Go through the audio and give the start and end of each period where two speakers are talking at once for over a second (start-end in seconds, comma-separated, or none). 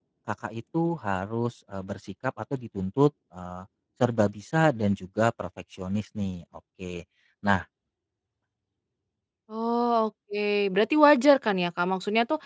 none